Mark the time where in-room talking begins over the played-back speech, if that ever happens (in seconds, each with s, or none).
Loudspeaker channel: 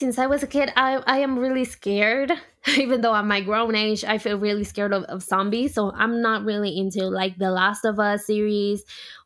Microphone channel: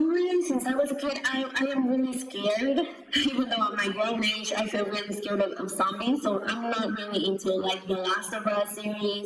none